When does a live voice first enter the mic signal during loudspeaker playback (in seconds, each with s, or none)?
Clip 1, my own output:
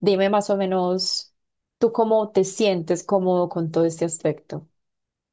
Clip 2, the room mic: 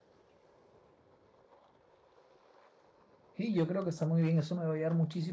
3.4 s